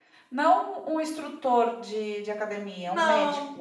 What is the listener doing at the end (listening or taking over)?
taking over